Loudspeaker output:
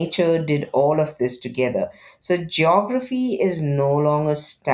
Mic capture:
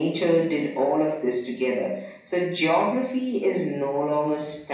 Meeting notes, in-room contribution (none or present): none